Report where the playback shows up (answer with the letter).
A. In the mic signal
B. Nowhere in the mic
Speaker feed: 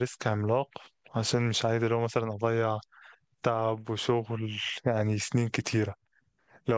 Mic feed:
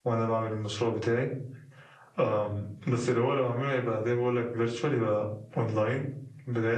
B